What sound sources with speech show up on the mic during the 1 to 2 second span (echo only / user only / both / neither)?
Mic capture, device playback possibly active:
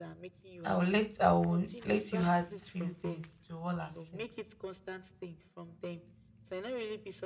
both